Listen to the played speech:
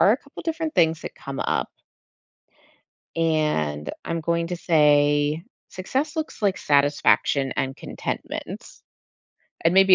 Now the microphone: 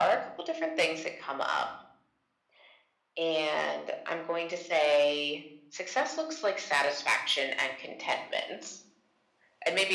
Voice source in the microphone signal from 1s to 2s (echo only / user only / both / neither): echo only